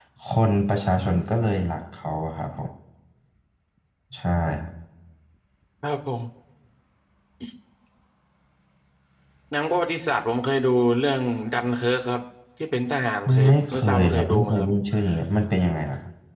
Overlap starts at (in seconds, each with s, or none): 13.4 s